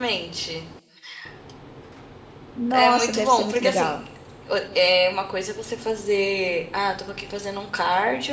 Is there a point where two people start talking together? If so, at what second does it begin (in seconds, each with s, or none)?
2.7 s